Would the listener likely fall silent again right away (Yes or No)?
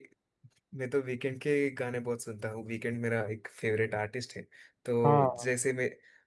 Yes